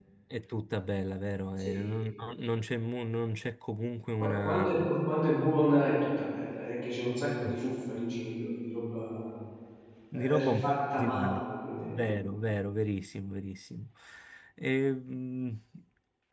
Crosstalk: present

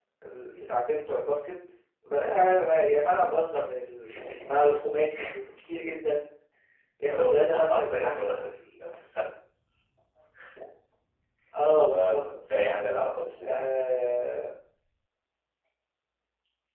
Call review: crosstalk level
present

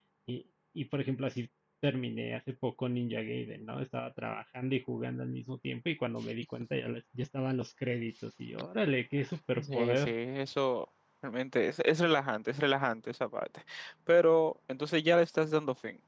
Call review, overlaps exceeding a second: none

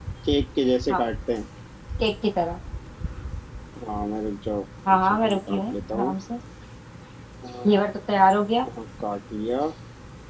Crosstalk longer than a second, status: present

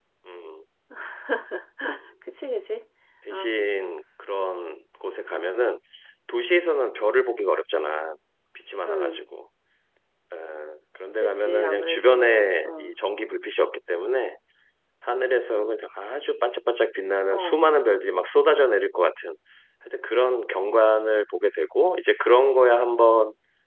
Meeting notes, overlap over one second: present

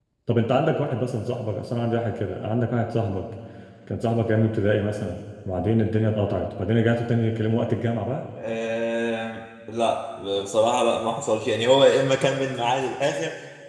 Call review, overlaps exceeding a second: none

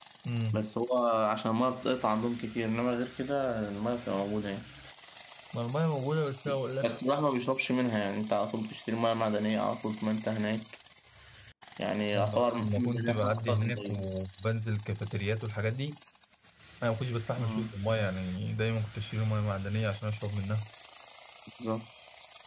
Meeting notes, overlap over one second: present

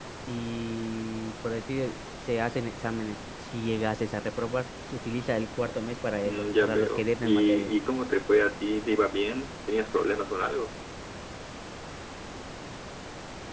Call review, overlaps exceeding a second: present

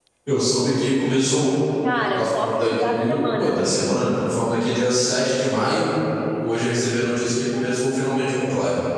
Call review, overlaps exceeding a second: present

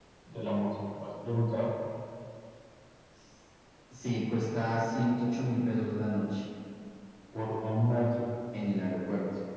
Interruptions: none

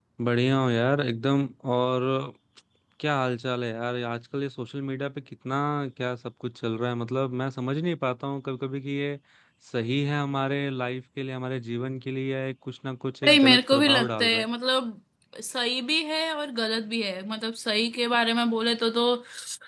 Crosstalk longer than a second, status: present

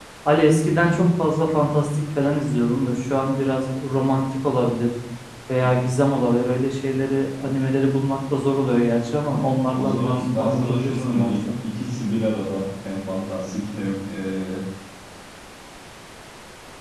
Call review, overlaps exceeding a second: present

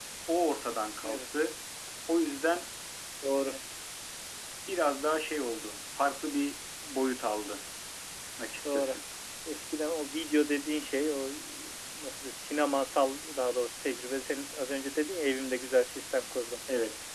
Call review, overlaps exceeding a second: none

